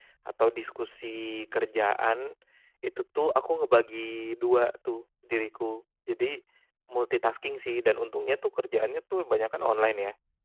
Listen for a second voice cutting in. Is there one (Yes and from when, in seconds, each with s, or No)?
No